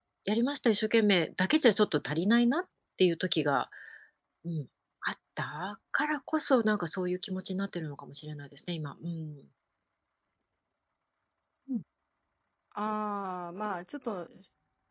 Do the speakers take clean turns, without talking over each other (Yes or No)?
Yes